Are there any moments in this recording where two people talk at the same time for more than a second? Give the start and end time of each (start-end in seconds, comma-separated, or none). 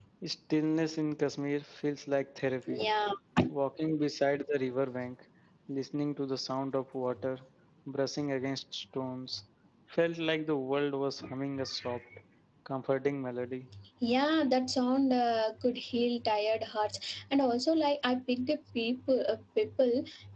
none